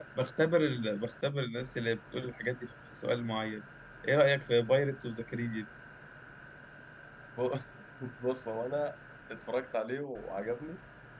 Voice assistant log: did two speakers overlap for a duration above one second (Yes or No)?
No